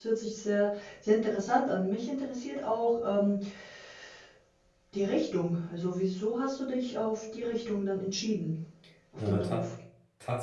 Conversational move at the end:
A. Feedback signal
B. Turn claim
B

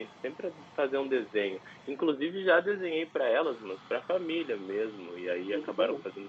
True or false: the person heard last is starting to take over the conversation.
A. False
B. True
A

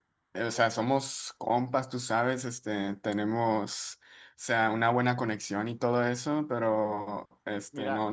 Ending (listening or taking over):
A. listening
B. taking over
A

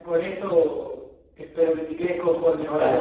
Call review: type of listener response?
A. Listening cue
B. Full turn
B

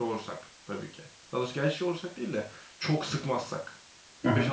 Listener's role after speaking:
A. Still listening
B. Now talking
B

